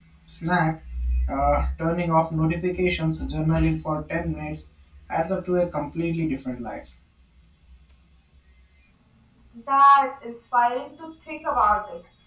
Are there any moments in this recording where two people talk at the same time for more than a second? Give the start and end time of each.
none

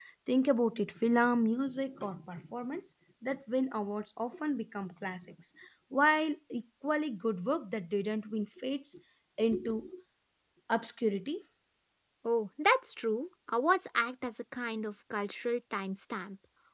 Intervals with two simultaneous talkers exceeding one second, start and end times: none

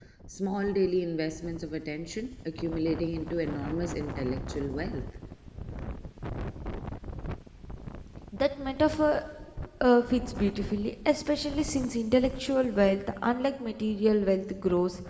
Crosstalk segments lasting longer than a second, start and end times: none

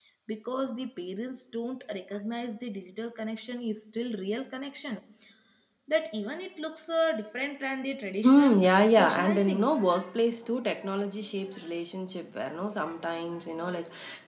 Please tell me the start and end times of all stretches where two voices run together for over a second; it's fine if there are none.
8.2-9.7

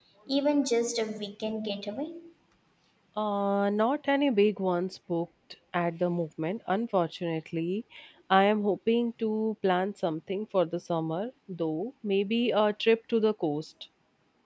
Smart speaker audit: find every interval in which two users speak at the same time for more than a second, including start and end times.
none

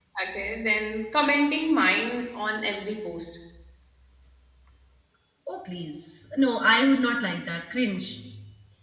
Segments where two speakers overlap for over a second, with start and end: none

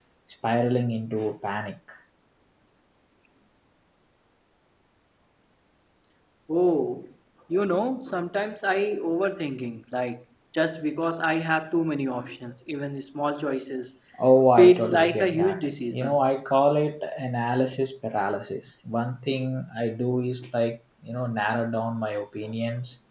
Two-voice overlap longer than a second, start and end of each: 14.6-16.2

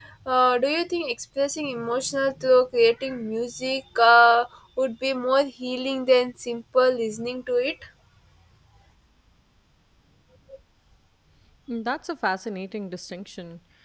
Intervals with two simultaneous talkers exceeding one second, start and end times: none

